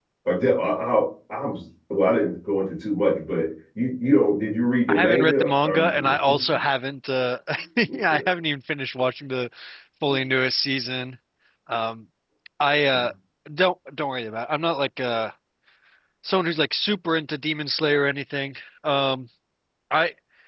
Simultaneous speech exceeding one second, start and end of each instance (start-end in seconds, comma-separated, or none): 4.9-6.1